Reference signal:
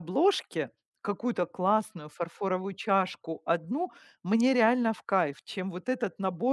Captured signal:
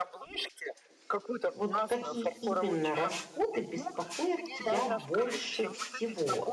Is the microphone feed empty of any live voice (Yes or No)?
No